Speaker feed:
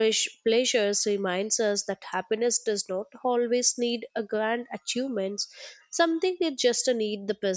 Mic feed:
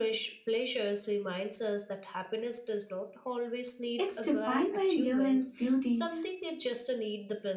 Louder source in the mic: user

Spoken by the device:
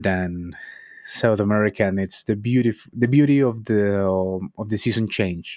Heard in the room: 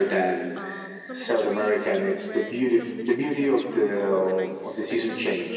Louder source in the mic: echo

